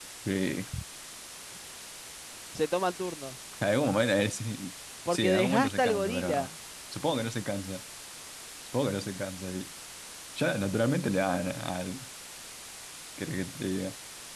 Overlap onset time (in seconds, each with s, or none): 5.0 s